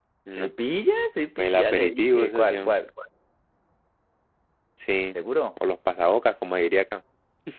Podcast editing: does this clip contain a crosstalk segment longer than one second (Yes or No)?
Yes